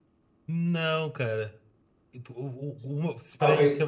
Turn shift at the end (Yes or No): No